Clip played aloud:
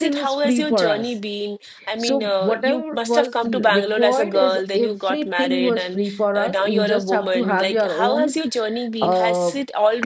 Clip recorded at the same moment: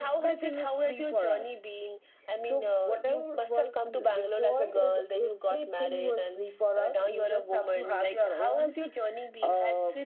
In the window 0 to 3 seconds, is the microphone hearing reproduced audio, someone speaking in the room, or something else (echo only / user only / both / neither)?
echo only